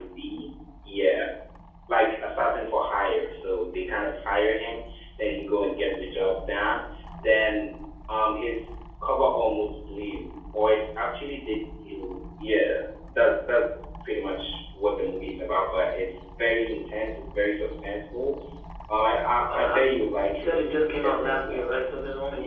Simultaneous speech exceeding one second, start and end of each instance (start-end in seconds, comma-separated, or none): 20.3-21.8